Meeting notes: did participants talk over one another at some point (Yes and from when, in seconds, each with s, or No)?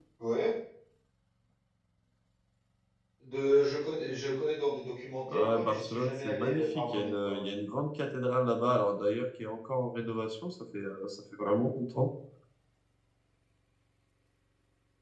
Yes, from 5.3 s